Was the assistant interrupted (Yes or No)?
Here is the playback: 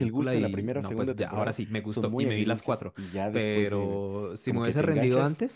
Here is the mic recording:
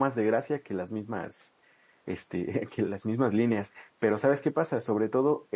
Yes